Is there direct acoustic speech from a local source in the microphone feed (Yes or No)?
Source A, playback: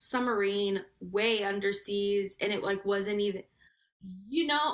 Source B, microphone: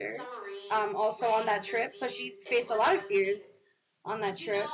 Yes